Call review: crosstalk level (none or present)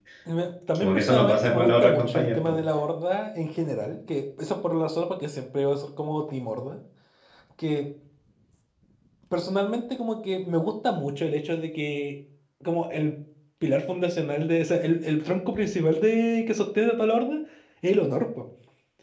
present